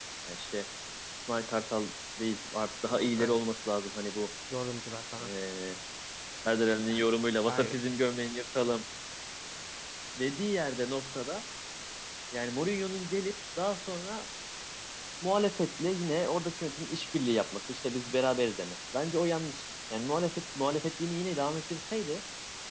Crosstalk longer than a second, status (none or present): none